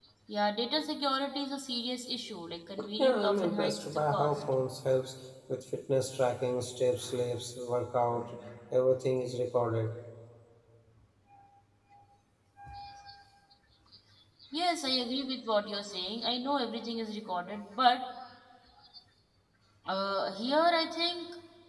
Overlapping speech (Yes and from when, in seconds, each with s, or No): Yes, from 2.8 s